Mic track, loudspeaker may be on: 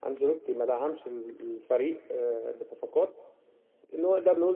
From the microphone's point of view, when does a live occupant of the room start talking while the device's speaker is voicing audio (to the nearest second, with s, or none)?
none